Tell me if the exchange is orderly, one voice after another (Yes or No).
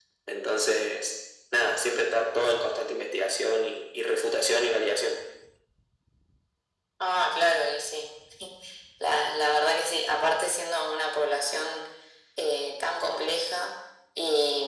Yes